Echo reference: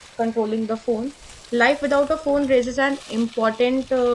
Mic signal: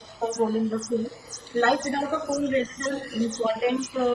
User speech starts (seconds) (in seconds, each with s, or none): none